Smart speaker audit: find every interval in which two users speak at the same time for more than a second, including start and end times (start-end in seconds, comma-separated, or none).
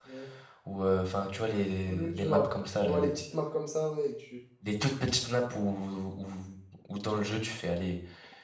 1.9-3.1